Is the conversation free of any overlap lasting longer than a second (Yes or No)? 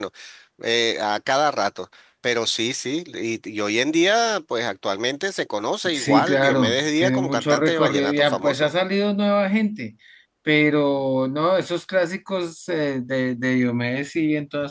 No